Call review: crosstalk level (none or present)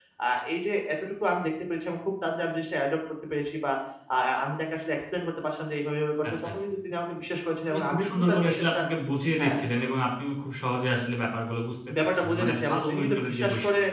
present